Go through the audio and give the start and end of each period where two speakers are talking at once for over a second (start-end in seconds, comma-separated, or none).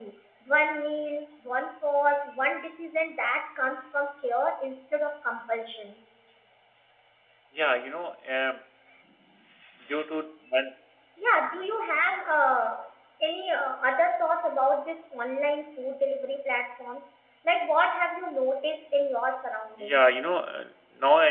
none